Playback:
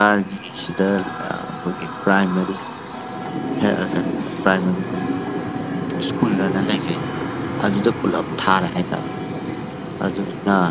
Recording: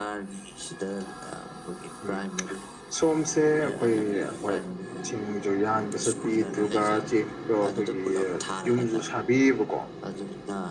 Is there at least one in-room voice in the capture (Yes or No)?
Yes